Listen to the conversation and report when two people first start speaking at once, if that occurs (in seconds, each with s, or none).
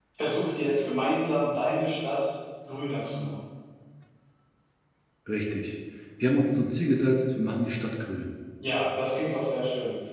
none